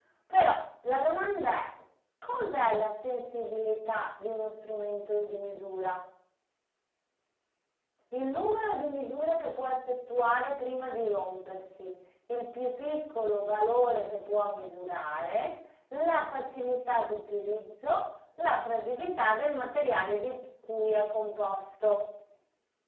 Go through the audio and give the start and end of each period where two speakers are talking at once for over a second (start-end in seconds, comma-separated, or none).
none